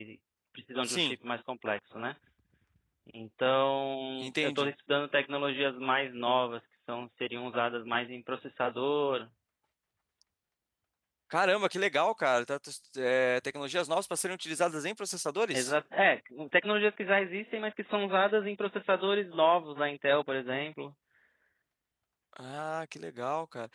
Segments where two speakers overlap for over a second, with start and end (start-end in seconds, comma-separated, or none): none